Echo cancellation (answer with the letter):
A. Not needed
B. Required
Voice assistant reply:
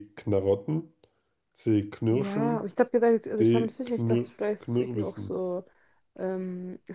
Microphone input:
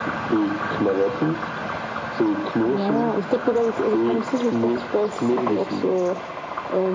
B